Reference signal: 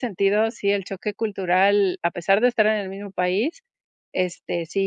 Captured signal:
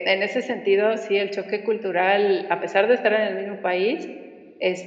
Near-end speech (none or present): none